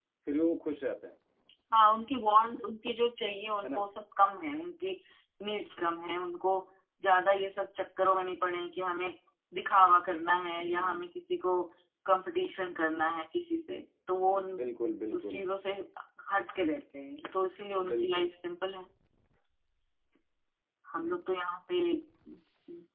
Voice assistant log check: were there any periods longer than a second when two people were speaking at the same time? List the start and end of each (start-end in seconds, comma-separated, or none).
none